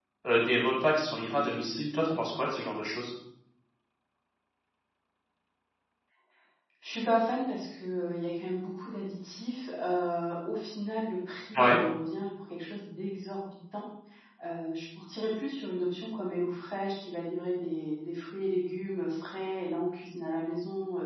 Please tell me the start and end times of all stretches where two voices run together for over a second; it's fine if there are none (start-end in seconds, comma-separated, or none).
none